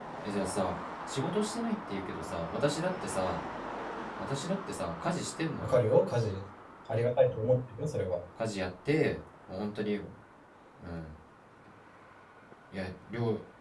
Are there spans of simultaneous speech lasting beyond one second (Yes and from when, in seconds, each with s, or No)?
No